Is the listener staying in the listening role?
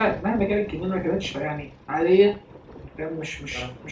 Yes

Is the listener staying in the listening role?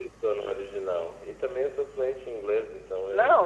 No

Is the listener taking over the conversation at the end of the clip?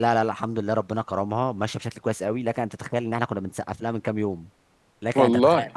No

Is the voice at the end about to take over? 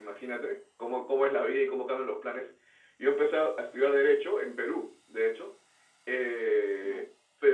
No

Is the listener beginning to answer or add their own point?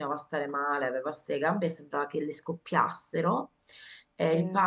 No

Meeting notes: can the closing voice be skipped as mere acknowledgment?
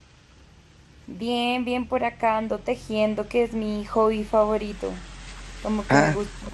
Yes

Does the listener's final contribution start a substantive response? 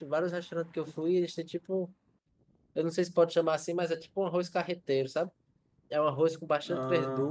No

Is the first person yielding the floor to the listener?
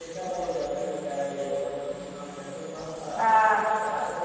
No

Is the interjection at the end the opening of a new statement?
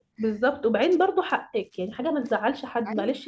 No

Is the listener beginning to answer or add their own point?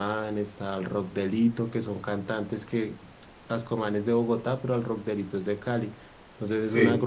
No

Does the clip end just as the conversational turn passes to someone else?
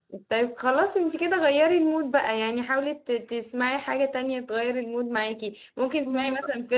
No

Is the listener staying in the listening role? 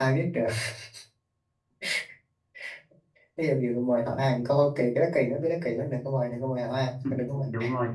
No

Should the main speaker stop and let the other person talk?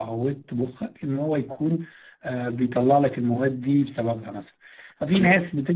No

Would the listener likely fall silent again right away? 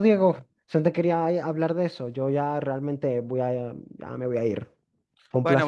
No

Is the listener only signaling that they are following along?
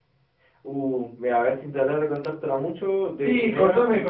No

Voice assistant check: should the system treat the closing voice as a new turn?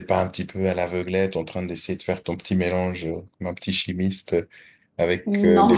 No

